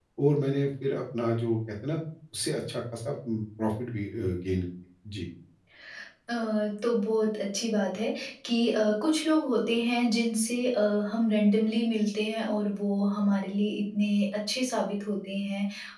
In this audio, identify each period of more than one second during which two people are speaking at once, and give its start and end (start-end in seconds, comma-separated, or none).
none